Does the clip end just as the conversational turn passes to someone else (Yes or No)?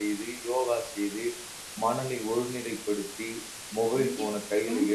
Yes